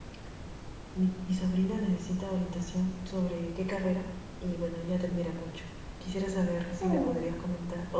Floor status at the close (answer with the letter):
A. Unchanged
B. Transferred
A